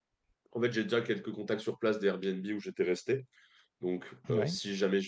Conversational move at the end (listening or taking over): listening